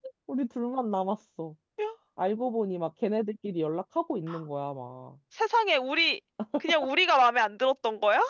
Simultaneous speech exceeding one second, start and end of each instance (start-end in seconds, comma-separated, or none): none